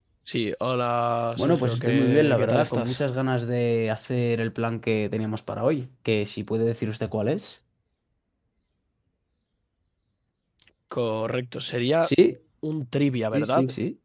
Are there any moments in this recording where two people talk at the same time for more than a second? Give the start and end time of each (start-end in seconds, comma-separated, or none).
1.4-3.0